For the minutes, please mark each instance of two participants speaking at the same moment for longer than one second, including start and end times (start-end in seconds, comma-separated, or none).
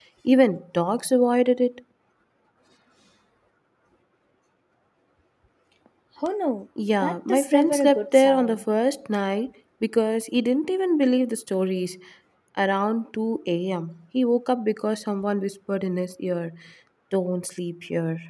7.0-8.6